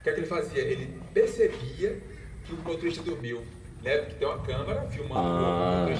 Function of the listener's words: listening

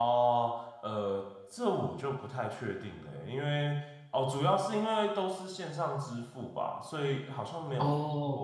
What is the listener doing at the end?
listening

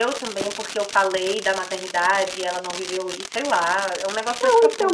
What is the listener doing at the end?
taking over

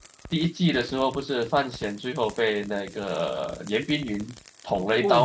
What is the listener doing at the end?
taking over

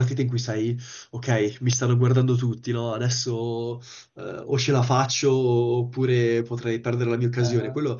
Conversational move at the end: listening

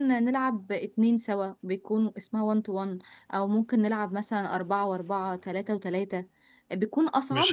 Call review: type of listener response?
taking over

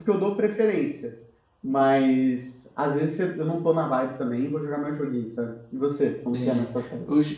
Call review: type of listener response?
taking over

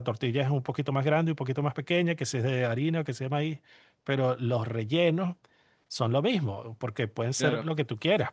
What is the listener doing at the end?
listening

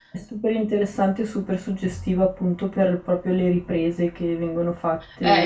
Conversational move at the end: taking over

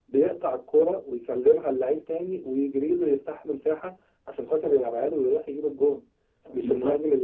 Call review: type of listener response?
listening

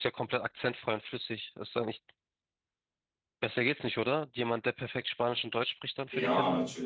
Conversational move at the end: taking over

